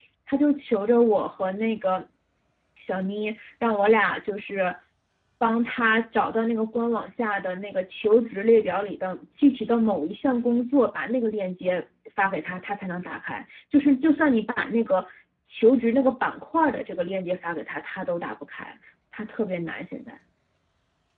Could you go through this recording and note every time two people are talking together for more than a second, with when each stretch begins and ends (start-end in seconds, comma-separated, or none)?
none